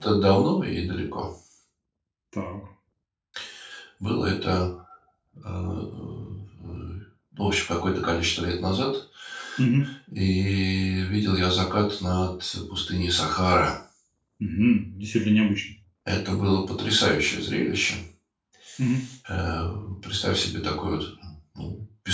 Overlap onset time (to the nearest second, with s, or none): none